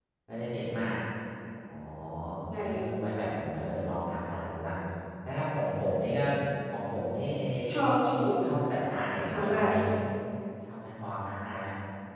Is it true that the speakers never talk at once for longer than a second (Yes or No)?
Yes